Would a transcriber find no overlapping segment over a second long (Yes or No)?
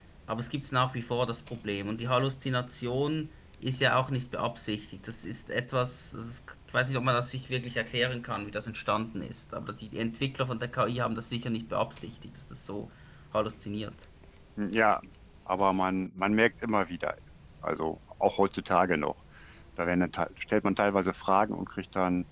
Yes